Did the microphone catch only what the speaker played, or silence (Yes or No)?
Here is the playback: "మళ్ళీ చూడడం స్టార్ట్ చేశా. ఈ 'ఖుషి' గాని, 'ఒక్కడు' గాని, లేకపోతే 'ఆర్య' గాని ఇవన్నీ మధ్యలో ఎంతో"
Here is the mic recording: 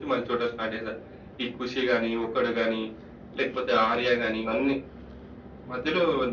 Yes